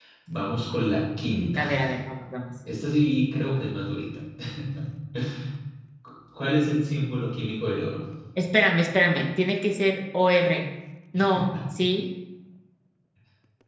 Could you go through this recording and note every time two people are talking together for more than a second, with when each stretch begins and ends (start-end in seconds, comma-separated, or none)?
none